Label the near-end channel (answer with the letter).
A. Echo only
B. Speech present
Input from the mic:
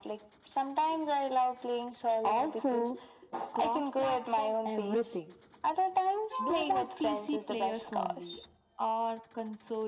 A